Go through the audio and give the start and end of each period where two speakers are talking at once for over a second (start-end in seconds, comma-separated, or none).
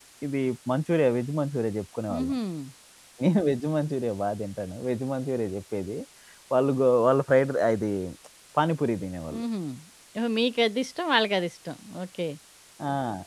none